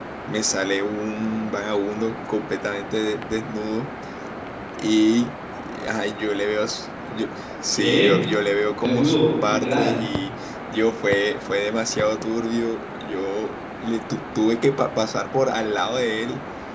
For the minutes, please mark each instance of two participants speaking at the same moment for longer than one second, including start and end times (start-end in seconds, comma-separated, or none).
8.8-10.0